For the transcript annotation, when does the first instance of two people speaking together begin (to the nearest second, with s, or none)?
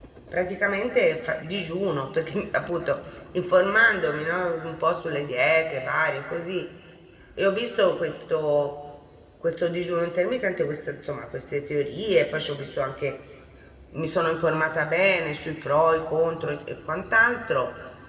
none